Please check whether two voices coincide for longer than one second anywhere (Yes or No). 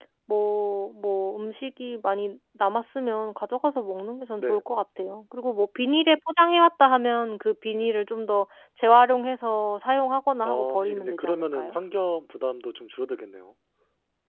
Yes